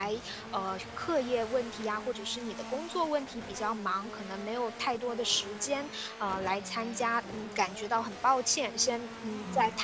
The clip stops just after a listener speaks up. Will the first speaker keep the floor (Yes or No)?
Yes